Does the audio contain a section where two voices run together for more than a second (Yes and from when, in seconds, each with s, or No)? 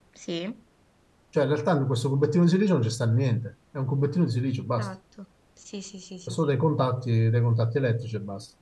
No